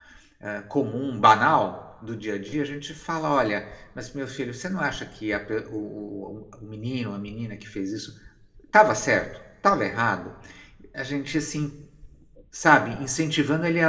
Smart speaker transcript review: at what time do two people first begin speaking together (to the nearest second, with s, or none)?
none